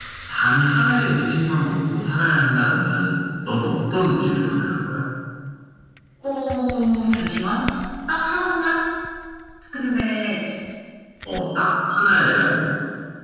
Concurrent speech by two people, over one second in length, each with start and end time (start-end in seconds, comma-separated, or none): none